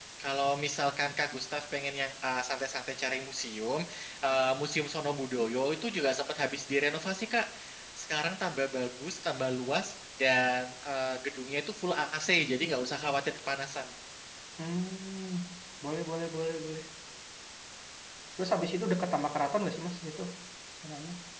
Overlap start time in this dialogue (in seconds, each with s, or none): none